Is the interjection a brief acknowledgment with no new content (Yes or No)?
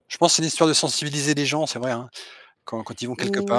No